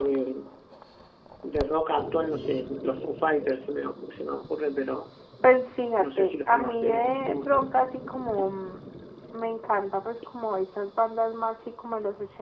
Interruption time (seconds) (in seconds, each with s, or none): 6.0 s